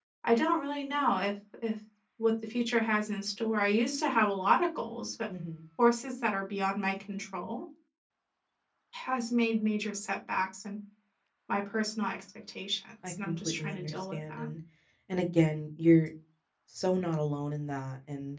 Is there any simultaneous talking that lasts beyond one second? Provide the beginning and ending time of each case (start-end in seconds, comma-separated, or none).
13.1-14.5